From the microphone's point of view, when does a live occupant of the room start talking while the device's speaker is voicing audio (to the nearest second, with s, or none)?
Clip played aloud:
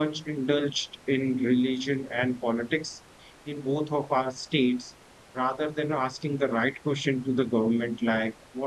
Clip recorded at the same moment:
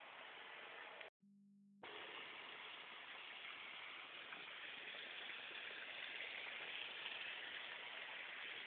none